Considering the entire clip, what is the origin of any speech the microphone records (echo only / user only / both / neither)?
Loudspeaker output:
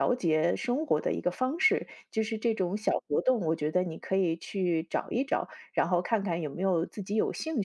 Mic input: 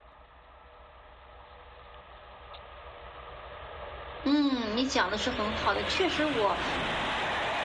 user only